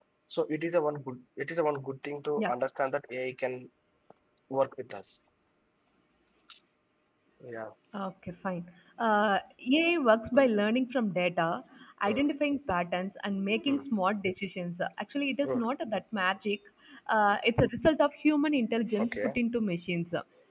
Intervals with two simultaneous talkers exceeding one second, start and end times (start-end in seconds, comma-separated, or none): none